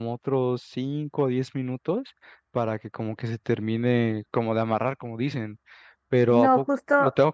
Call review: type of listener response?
taking over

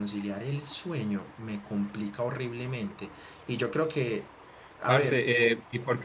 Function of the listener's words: taking over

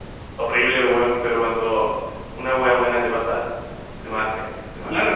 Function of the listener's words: taking over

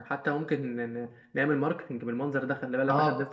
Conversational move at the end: taking over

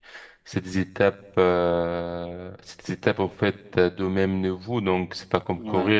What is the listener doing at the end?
listening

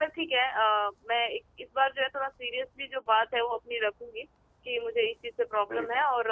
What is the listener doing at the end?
listening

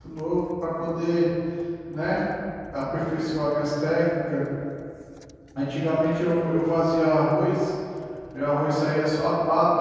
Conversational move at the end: listening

